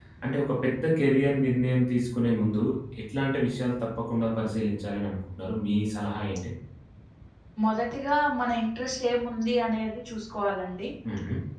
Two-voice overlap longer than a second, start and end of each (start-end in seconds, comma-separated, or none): none